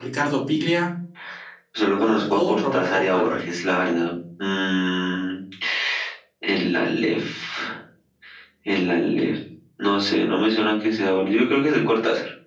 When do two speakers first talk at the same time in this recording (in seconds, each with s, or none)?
2.0 s